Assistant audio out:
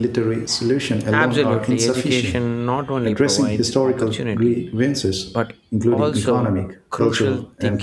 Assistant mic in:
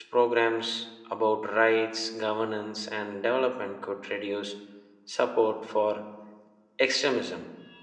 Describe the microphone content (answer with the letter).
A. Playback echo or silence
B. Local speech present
B